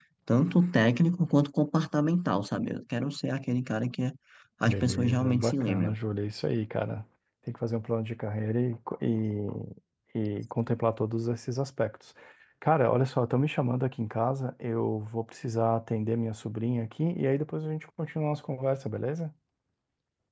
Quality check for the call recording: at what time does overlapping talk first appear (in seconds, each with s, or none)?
4.7 s